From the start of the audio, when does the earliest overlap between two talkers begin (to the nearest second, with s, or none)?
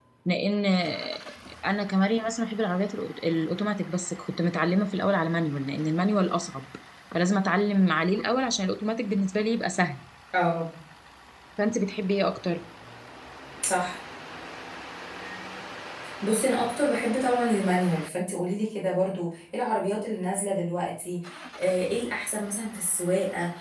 none